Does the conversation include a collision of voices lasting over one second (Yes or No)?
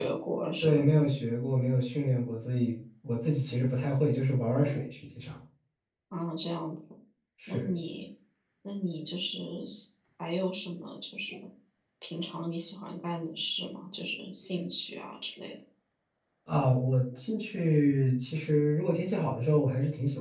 No